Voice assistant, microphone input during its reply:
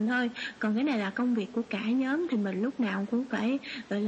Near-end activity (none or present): none